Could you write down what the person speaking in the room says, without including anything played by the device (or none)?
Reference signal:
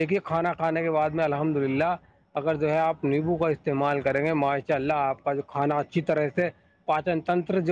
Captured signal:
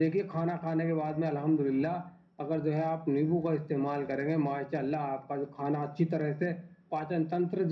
none